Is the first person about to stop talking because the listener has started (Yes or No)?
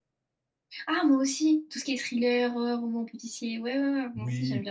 Yes